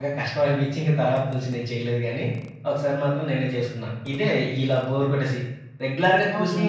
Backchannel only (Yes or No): Yes